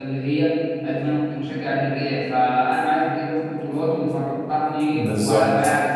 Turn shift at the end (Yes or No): No